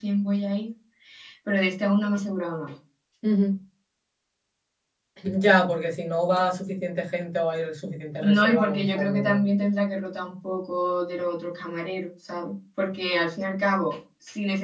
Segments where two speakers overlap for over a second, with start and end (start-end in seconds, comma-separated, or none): 8.2-9.4